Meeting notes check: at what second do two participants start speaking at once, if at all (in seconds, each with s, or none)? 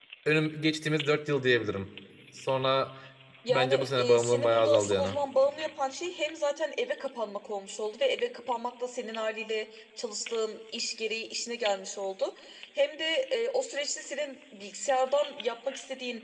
3.5 s